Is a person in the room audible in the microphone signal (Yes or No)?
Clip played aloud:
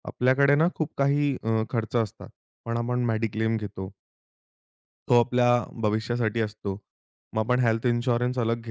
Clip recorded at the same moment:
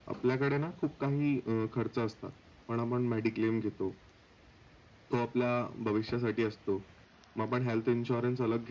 No